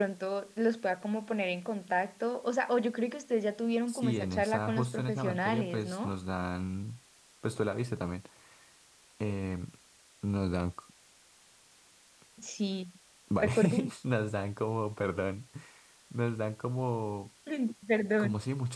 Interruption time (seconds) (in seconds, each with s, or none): 3.9 s